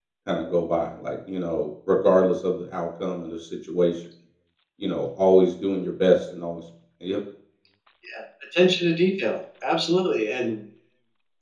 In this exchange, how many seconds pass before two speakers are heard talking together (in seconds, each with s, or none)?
none